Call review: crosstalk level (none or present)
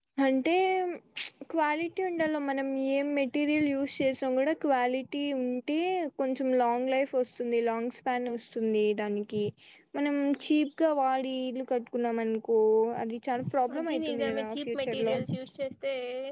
present